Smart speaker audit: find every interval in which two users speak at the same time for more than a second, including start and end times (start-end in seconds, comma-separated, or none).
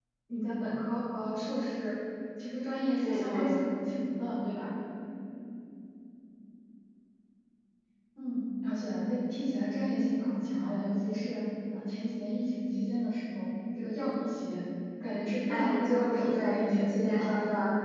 15.5-17.3